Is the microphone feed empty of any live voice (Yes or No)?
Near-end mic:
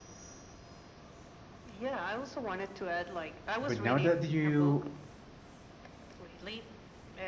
No